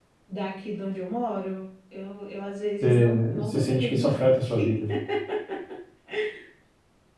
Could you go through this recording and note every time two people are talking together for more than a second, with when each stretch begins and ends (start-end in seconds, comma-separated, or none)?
2.8-4.8